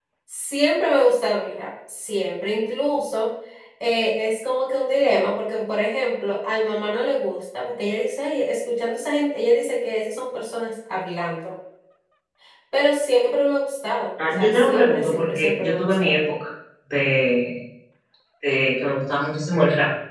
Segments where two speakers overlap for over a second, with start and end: 14.4-16.2

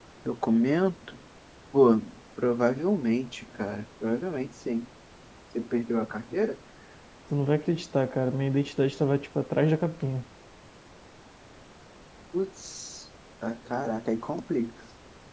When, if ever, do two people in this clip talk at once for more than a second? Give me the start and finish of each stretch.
none

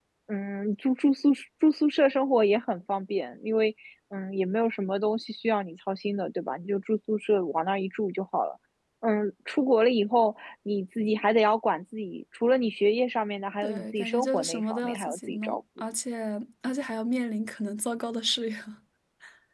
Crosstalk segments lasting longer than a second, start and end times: 13.6-15.6

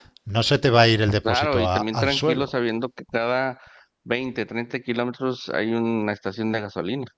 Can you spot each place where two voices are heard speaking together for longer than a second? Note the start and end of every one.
1.3-2.5

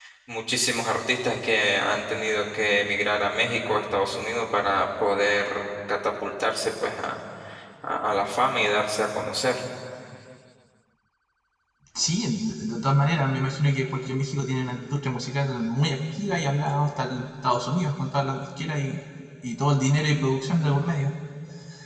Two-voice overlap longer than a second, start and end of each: none

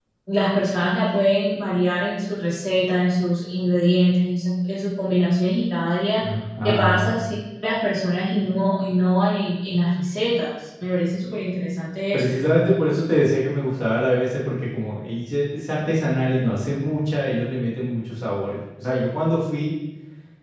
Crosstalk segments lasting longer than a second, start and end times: none

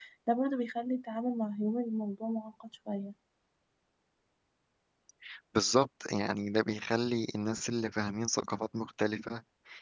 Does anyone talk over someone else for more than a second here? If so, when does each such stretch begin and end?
none

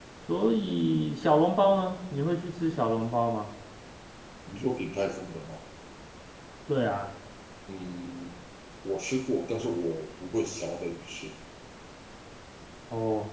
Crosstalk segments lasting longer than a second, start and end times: none

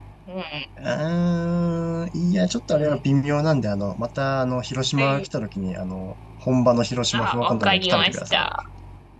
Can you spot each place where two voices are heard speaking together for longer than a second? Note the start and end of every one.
7.1-8.4

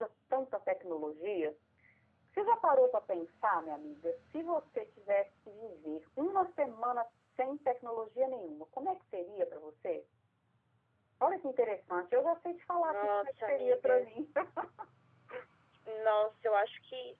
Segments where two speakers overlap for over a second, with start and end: 12.8-14.1

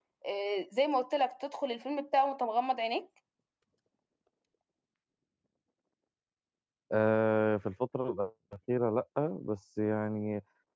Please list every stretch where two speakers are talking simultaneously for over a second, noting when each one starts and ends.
none

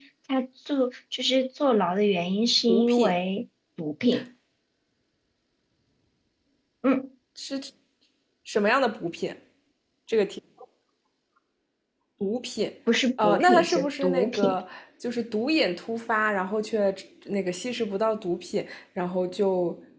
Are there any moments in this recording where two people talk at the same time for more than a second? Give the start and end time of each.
13.2-14.6

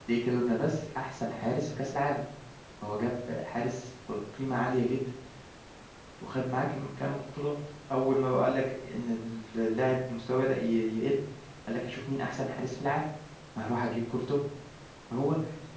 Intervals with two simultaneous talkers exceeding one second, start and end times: none

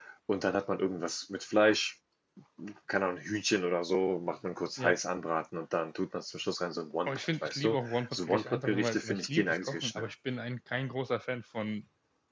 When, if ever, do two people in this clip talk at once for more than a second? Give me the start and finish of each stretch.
7.0-10.1

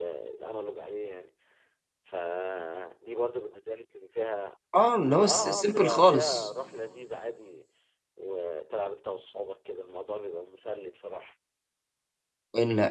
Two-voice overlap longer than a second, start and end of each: 5.2-6.5

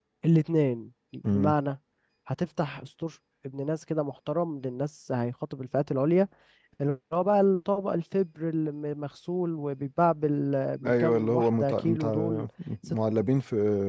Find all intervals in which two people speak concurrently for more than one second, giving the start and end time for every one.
10.9-12.4

